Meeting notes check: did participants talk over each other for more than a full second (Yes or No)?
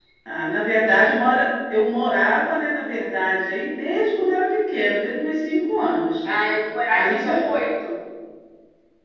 No